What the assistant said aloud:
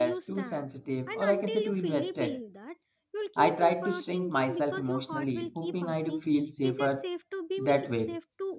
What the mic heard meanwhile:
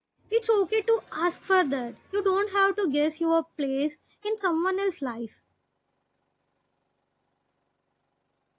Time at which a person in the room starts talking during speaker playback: 0.3 s

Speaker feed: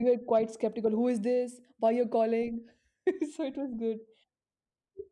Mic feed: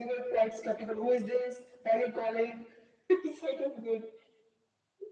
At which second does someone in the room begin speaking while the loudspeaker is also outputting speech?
none

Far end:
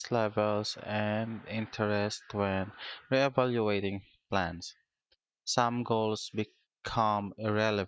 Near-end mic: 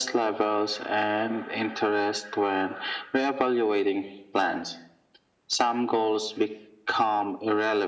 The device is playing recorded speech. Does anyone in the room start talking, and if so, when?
none

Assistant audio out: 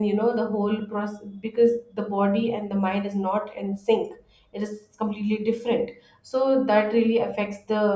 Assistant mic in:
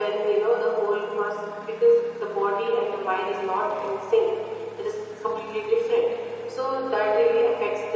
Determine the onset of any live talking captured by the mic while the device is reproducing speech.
none

